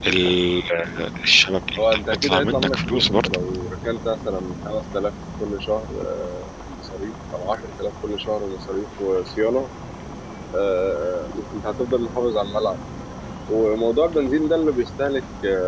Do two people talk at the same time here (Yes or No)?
Yes